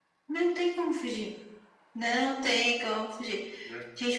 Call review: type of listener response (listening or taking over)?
listening